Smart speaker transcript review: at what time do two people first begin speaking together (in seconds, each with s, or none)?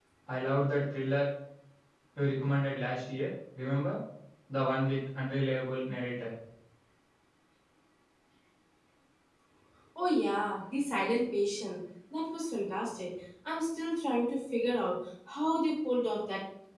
none